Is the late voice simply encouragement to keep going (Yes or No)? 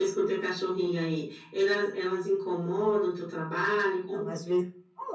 No